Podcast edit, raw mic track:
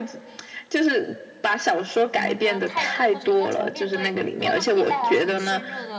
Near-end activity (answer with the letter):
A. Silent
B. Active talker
B